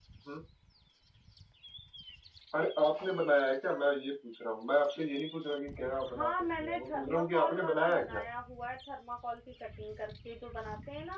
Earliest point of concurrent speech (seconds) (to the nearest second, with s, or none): 6 s